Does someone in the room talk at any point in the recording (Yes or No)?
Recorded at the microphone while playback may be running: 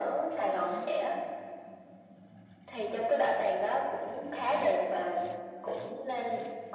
No